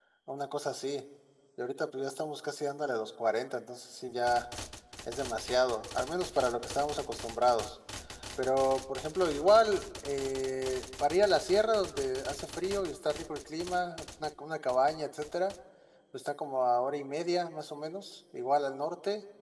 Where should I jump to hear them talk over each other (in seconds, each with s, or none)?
none